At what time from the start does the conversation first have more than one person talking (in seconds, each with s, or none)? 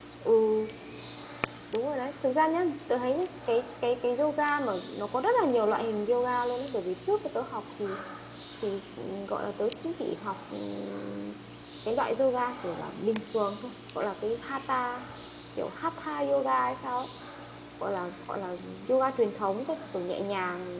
none